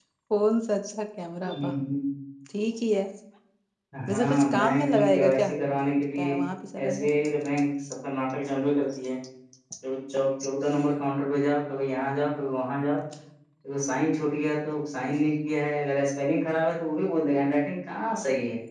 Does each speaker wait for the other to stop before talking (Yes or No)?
No